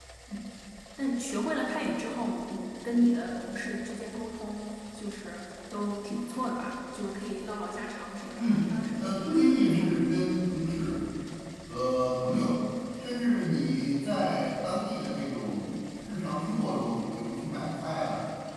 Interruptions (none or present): present